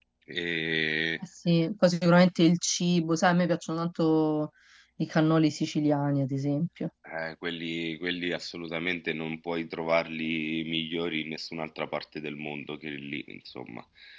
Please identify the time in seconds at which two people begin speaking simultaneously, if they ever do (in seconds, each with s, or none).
none